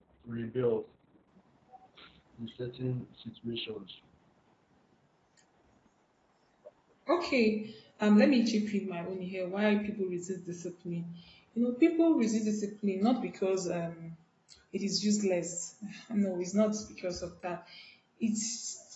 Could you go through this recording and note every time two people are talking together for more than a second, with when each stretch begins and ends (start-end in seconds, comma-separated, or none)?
none